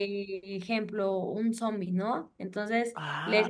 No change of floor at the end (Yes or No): Yes